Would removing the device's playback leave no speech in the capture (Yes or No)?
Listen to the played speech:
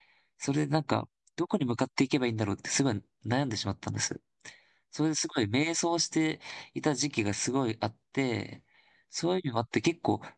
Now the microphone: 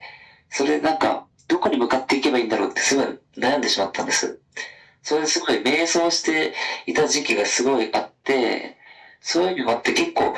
Yes